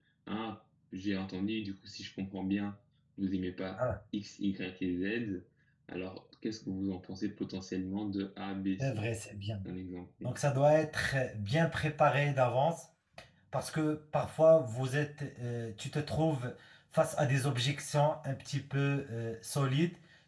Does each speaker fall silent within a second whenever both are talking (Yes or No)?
Yes